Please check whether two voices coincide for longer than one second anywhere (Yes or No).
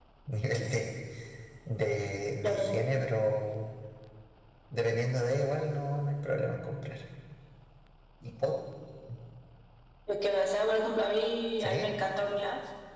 No